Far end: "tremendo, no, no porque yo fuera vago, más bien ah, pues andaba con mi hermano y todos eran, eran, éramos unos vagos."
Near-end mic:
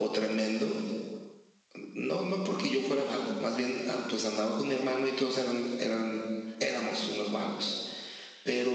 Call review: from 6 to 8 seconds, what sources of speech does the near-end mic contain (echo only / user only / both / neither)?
echo only